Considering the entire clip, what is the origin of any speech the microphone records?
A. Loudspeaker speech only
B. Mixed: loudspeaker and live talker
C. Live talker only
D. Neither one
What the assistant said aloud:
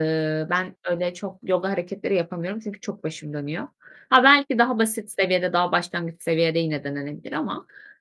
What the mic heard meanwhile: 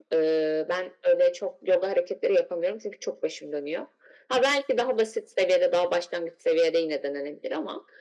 A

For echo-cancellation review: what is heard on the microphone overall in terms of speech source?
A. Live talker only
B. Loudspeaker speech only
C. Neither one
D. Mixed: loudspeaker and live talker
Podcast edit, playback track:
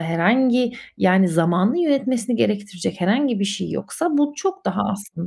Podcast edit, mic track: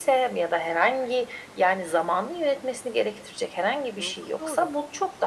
D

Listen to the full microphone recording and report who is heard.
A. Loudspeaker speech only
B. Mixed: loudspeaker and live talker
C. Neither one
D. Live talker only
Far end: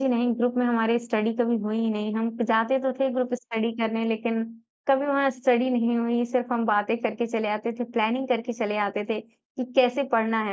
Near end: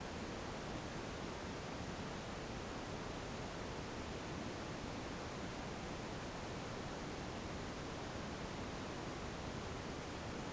C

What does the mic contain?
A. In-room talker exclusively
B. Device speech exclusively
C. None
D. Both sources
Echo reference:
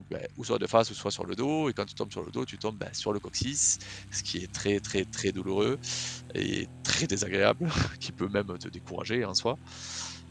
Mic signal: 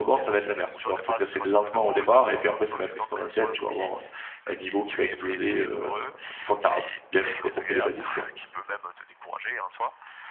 D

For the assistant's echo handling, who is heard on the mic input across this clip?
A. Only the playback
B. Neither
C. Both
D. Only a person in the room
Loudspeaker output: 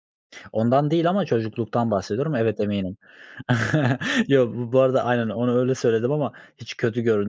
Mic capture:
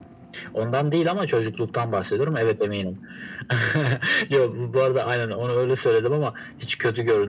A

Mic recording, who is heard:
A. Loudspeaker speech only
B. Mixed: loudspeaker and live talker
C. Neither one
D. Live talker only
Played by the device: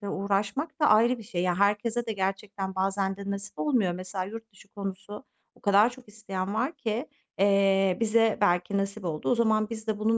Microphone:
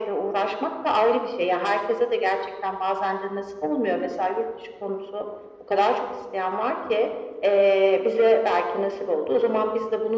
A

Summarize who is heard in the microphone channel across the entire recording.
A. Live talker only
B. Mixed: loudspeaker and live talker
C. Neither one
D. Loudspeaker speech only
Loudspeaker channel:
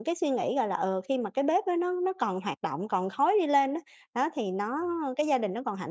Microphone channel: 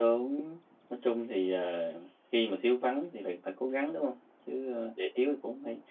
A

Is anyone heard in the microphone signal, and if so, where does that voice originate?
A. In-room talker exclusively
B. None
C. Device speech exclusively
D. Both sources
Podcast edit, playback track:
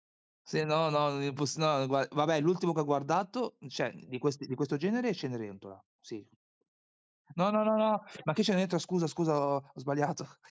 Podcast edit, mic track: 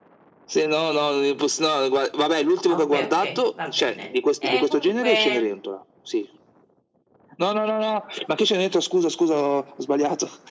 D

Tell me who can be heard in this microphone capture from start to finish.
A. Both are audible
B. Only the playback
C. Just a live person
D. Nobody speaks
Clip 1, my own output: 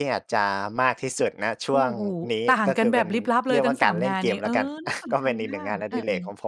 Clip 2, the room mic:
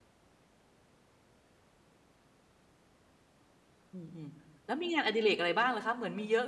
C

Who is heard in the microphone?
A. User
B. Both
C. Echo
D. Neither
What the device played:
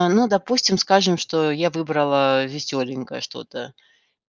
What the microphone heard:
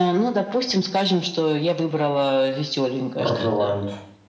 B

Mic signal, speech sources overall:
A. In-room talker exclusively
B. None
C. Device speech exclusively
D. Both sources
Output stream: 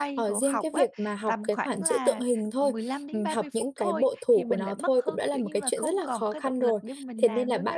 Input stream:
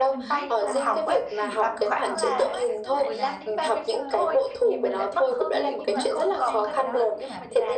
D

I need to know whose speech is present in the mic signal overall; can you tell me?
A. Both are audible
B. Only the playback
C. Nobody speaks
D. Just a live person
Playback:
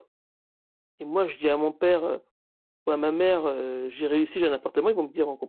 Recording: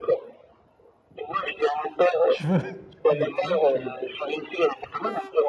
A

